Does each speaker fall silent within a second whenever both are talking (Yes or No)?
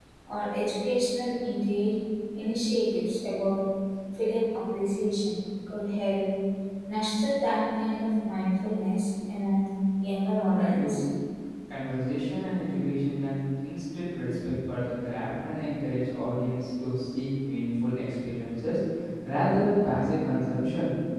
Yes